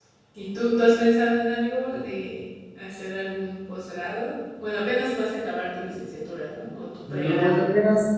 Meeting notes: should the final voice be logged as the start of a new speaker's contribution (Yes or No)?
Yes